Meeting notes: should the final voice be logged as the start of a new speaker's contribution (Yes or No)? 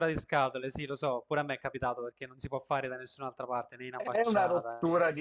Yes